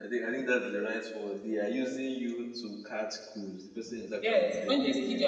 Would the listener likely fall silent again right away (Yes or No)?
No